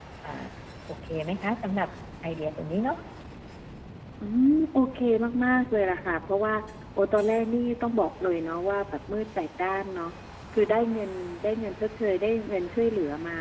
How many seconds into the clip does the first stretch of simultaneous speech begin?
none

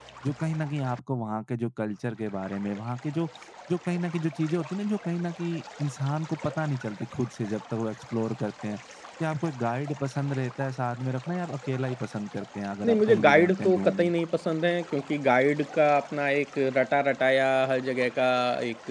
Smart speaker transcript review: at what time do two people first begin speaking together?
12.8 s

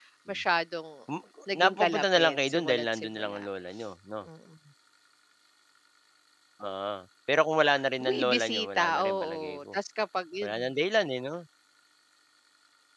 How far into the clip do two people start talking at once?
1.6 s

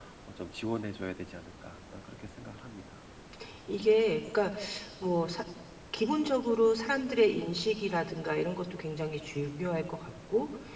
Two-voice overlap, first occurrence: none

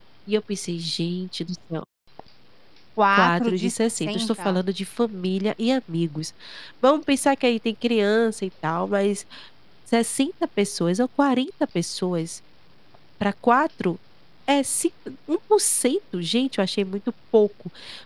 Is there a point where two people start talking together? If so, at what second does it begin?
3.1 s

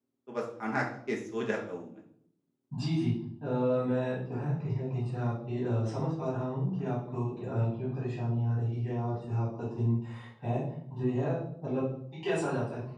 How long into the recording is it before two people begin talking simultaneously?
none

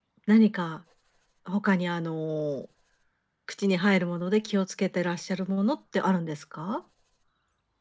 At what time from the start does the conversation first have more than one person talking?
none

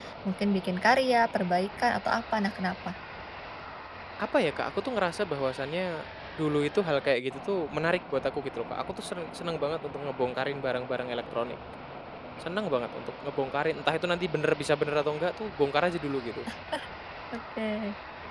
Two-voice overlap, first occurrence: none

